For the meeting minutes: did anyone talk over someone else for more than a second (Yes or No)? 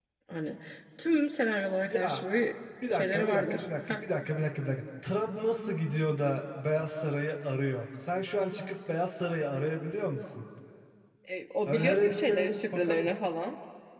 Yes